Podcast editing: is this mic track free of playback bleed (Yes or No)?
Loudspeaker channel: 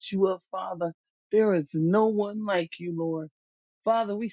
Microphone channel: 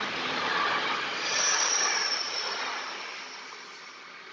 Yes